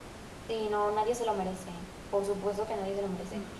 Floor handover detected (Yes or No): No